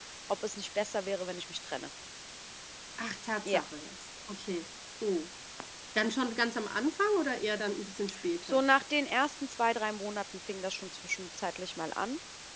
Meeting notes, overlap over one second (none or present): none